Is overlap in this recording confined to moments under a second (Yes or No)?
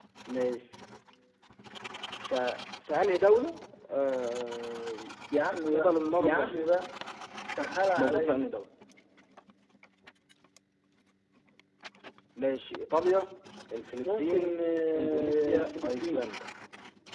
No